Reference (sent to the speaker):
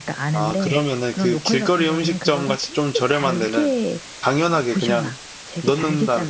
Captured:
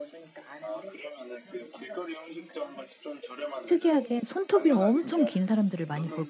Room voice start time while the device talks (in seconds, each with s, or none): 3.7 s